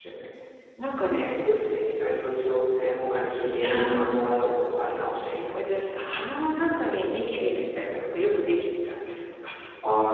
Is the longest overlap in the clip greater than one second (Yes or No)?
No